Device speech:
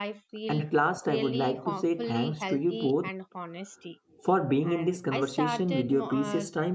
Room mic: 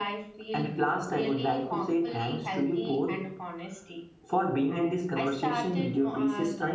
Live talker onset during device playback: none

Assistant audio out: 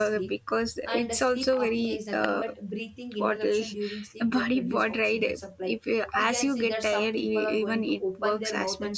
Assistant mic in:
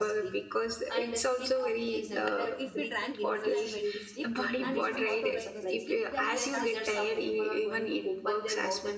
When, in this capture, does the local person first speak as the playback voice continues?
2.1 s

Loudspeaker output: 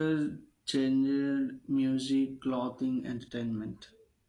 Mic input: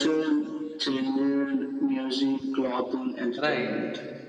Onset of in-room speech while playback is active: 3.4 s

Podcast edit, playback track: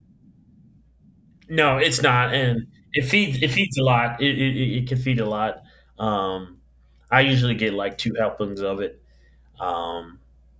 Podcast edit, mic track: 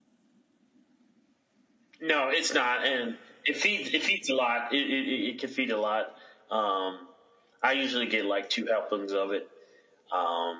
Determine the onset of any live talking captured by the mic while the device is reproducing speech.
none

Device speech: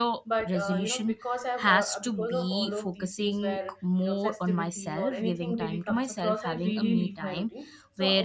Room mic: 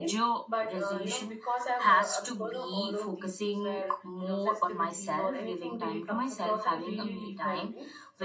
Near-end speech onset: none

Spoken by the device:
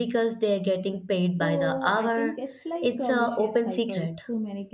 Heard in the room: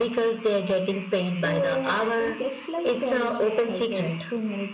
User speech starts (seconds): none

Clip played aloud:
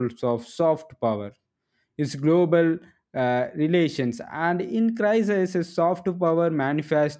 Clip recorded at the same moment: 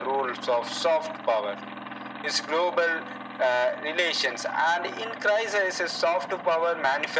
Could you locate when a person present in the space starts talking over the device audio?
none

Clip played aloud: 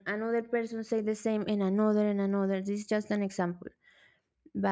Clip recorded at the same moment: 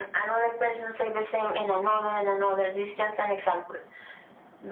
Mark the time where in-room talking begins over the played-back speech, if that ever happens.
none

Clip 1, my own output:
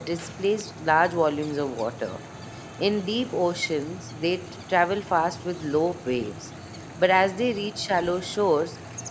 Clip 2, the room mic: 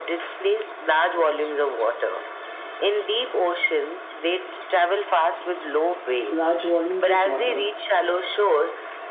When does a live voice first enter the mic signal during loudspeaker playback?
6.3 s

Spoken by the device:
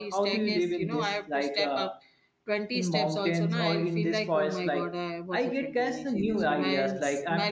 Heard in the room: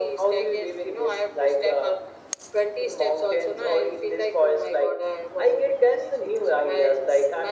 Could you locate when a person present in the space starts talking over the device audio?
none

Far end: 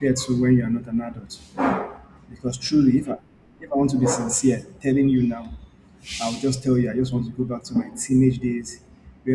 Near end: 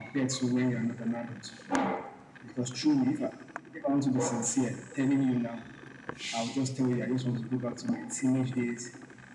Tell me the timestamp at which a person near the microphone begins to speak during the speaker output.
none

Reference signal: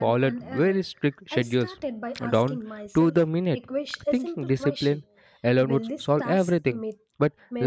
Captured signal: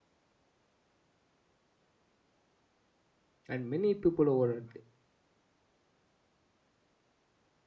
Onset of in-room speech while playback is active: 3.5 s

